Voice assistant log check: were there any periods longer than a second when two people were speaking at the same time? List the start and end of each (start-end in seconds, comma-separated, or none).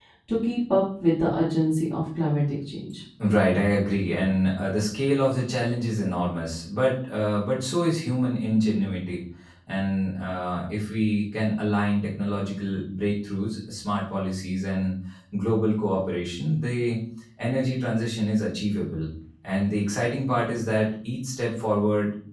none